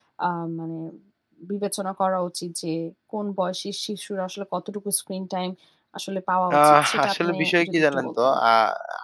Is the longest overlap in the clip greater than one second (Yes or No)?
Yes